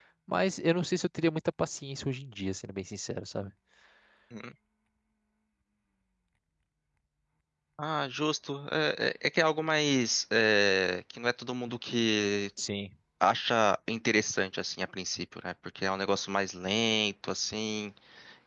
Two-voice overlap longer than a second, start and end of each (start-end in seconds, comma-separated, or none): none